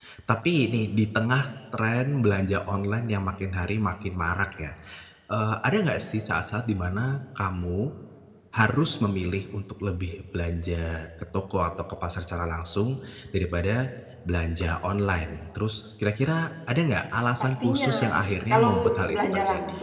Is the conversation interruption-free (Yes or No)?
No